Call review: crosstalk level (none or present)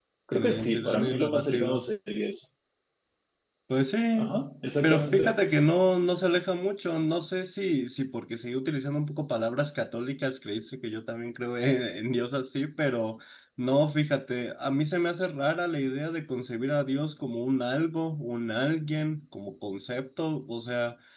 present